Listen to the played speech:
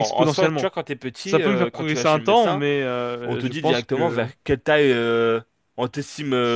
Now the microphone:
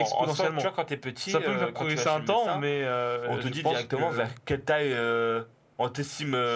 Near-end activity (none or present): none